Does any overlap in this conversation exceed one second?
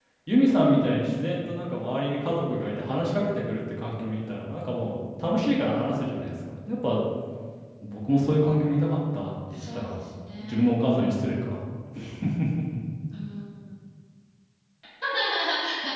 No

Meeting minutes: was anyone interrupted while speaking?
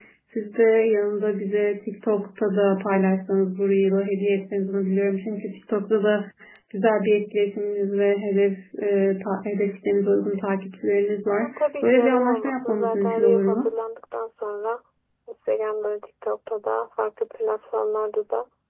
Yes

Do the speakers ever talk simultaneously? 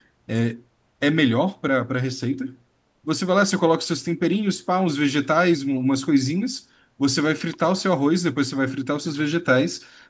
No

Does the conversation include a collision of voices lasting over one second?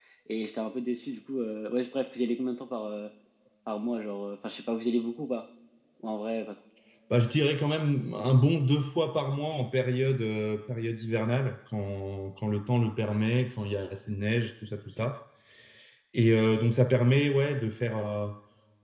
No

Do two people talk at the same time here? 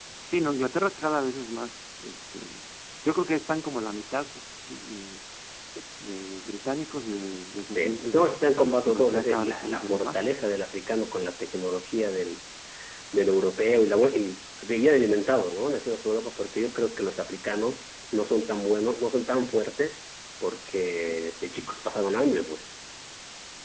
Yes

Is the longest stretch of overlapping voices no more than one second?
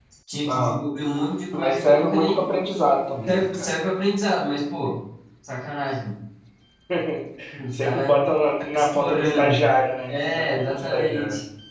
No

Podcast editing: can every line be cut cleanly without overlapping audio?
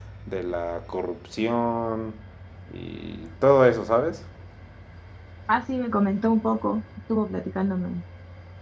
Yes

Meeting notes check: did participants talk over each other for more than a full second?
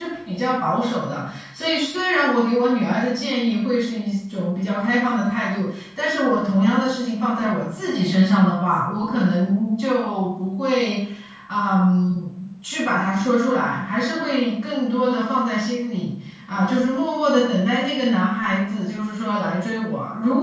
No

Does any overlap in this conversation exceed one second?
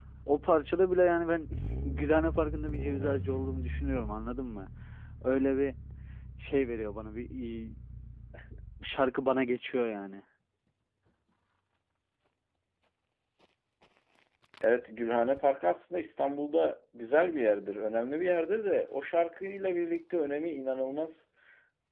No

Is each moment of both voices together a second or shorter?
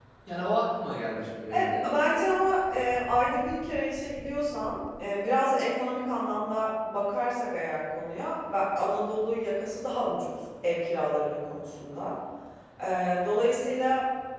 Yes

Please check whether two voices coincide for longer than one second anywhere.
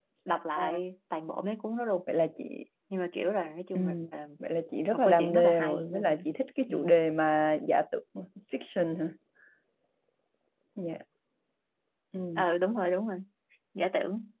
Yes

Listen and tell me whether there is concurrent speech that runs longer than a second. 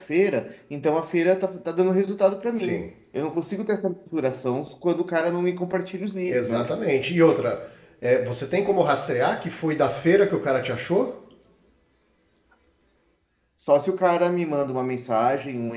No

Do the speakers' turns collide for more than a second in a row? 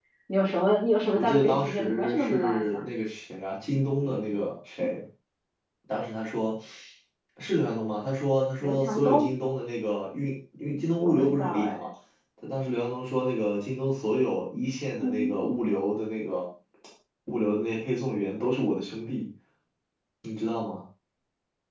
Yes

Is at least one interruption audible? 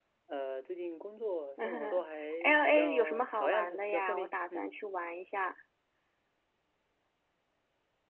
Yes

